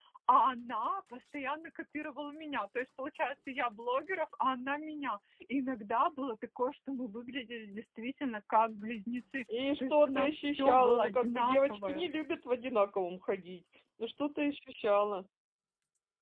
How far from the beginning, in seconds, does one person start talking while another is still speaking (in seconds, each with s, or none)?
9.8 s